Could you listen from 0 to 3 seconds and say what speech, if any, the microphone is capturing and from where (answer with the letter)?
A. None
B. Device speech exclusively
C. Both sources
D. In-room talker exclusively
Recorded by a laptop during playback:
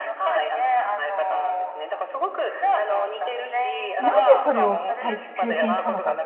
B